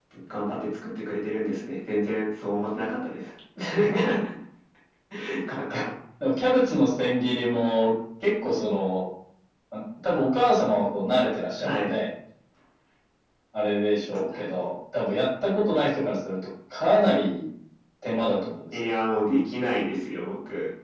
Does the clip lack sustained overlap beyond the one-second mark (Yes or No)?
Yes